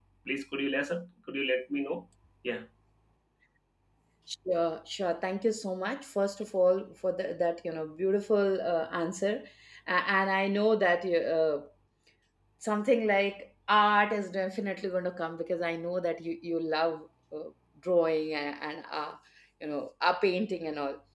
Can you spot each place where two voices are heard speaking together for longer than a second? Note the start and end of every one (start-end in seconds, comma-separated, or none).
none